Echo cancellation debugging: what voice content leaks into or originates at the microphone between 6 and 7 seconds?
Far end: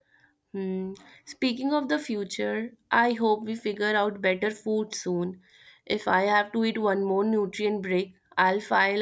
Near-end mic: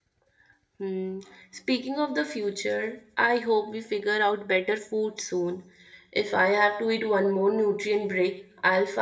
echo only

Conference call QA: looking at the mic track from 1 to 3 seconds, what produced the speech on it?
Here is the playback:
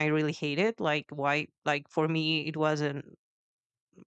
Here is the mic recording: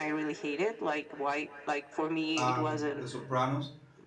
both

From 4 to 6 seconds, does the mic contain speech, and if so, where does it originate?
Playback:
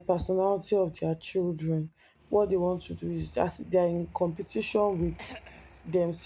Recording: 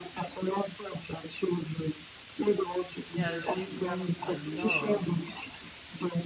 both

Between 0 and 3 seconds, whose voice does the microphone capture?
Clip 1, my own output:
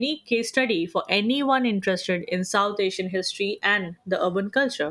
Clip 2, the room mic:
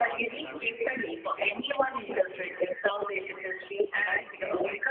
both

